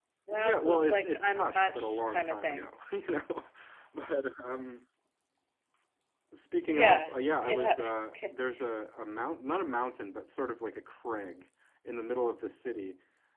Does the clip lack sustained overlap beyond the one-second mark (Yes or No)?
No